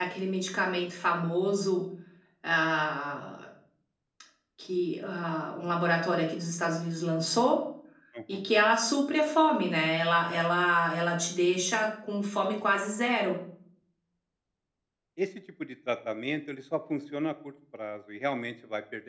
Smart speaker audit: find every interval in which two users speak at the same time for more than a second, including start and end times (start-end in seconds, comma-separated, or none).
none